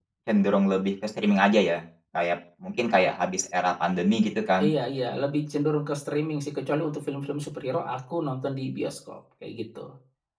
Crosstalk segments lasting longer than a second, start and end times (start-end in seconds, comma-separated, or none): none